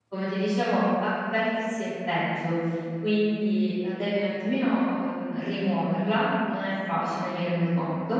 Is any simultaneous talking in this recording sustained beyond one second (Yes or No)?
No